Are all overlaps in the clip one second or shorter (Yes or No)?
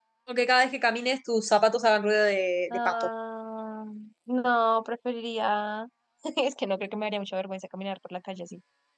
Yes